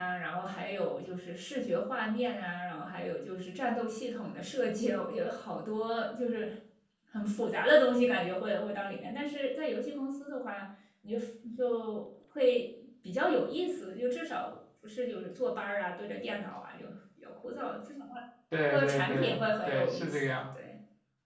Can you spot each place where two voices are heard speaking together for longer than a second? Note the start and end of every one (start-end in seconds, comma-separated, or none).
18.7-20.4